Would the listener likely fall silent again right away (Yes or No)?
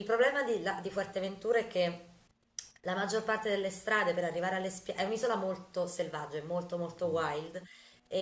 Yes